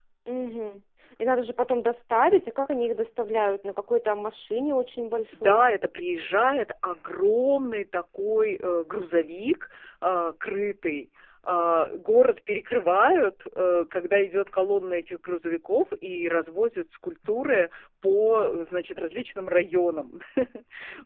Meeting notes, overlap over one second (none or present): none